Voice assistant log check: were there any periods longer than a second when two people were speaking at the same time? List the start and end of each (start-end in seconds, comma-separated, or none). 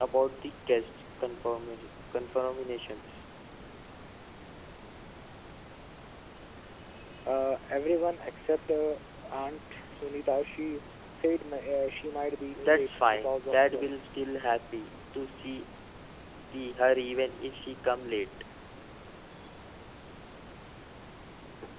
12.6-13.9